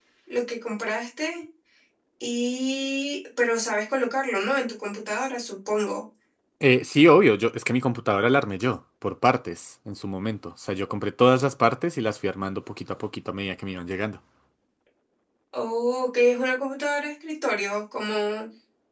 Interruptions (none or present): none